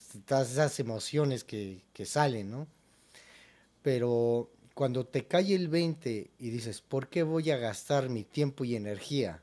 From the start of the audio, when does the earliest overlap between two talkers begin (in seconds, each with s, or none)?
none